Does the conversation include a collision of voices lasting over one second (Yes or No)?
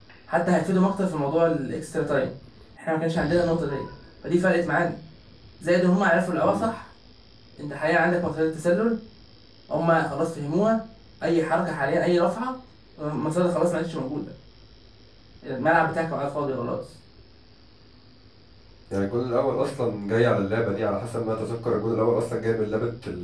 No